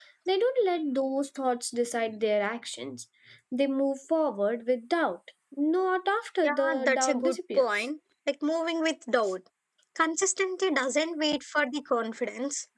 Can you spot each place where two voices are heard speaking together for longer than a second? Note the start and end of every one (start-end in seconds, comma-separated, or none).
6.4-7.8